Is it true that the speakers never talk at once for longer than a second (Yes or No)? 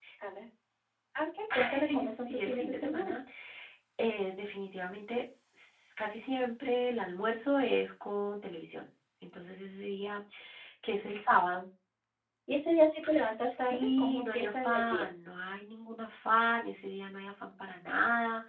No